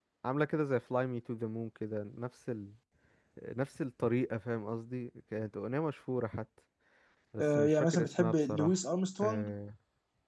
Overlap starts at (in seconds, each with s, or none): 7.4 s